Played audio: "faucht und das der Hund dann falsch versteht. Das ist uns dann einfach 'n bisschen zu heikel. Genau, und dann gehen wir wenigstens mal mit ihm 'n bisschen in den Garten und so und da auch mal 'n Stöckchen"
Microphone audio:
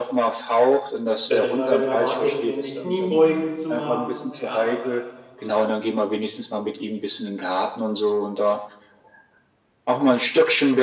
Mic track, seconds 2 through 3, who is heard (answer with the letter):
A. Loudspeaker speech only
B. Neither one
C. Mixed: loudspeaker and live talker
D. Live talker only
C